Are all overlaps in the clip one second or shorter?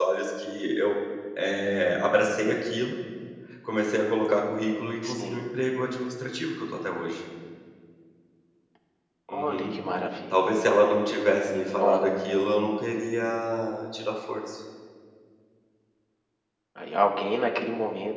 Yes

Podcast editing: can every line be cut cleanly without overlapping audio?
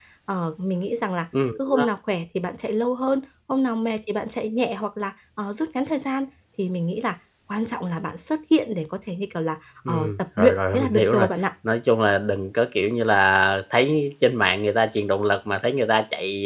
No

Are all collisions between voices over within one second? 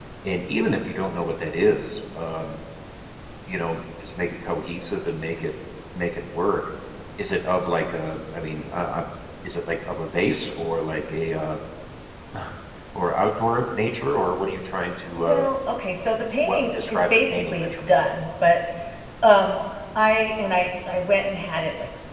No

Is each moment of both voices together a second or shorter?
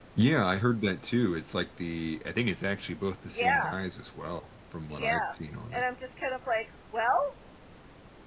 Yes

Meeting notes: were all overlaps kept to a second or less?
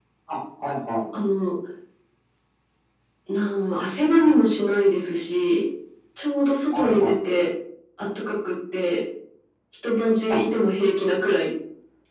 Yes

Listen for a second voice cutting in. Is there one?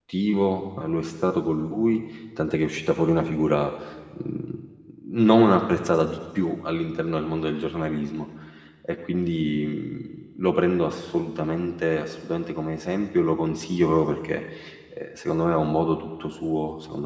No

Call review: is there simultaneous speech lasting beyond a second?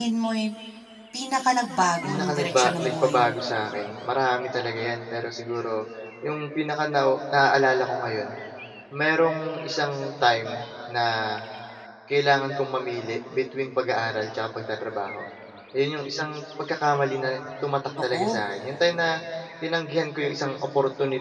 Yes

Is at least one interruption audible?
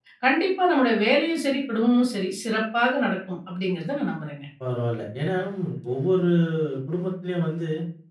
No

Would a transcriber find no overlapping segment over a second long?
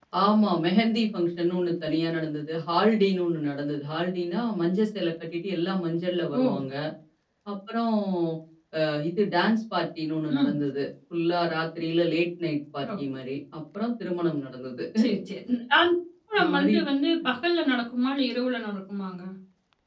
Yes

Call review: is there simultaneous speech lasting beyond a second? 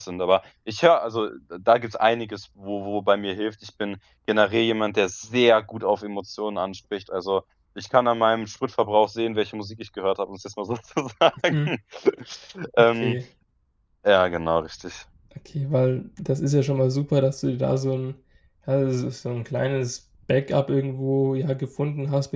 No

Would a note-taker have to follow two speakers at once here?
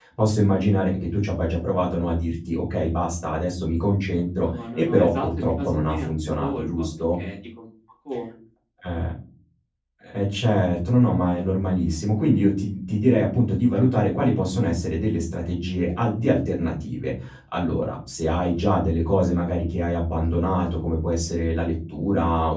Yes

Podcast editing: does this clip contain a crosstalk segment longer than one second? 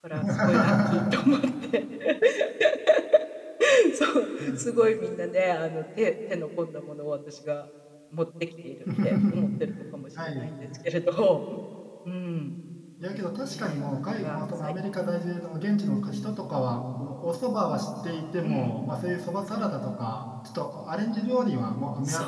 Yes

